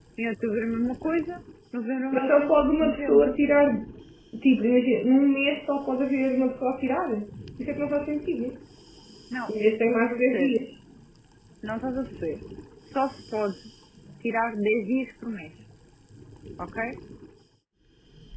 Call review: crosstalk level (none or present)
present